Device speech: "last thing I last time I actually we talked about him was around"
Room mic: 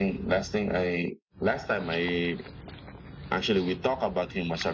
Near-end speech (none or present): none